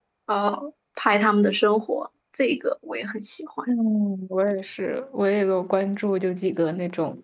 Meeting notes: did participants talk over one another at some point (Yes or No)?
No